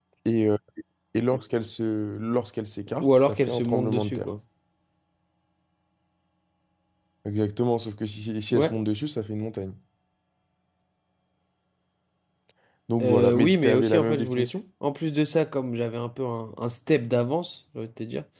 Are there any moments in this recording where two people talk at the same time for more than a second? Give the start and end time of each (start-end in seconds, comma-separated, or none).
3.0-4.3, 13.0-14.5